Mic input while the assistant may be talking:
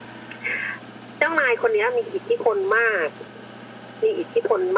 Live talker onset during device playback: none

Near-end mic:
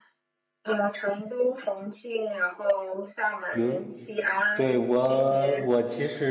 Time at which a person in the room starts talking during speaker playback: 3.5 s

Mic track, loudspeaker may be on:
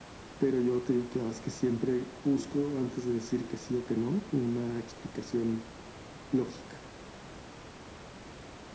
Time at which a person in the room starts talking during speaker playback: none

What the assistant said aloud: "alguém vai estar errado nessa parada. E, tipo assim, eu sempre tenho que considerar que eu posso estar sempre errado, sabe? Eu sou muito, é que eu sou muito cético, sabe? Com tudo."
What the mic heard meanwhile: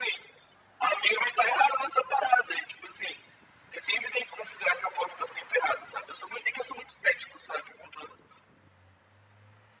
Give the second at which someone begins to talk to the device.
none

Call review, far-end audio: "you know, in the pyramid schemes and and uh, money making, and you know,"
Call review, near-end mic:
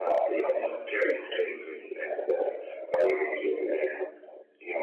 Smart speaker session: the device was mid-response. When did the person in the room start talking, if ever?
none

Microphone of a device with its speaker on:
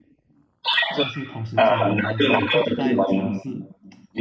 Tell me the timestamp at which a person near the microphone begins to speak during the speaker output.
1.0 s

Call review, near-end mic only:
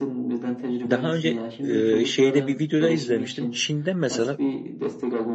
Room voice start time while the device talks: 0.9 s

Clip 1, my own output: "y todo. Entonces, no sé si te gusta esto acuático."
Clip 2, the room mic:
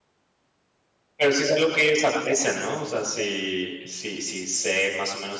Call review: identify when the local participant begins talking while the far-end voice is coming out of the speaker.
1.2 s

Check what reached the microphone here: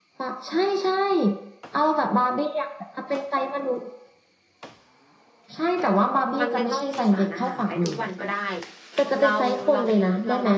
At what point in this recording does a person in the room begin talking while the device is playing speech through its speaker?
6.4 s

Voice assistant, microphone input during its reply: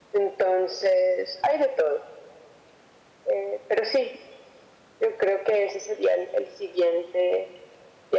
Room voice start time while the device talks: none

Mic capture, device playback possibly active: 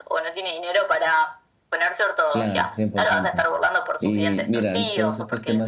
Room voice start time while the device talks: 2.3 s

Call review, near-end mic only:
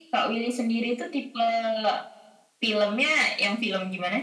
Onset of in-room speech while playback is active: none

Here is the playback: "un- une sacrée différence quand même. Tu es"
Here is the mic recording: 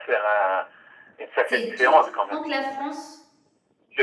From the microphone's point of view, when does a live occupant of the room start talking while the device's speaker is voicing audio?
1.4 s

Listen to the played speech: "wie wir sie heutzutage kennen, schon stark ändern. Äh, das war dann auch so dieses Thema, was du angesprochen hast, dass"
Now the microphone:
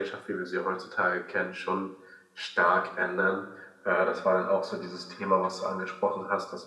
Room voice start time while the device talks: none

